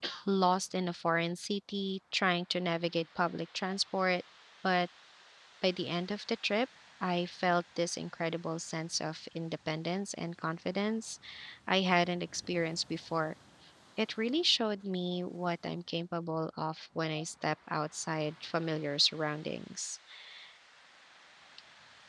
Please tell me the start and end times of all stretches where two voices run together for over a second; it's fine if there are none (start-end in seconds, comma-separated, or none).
none